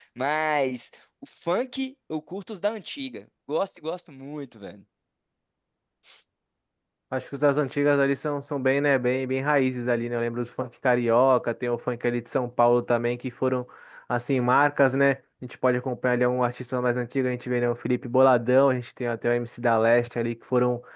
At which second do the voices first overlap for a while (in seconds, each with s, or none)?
none